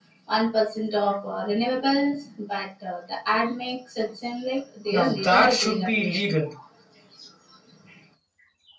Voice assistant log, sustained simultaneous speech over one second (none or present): present